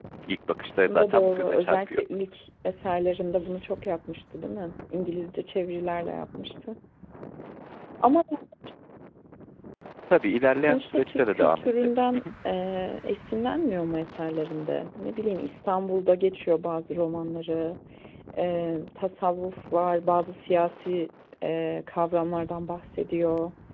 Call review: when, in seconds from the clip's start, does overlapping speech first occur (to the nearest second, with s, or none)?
1 s